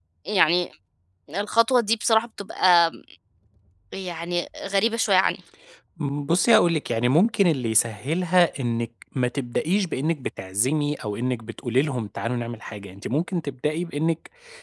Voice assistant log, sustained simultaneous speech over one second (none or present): none